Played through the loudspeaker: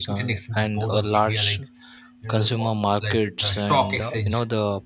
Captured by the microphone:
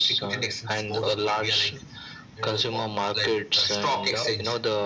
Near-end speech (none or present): none